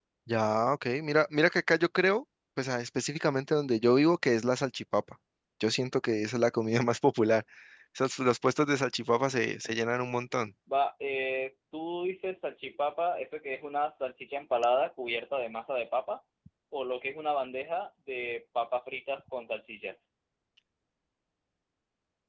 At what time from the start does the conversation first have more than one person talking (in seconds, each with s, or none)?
none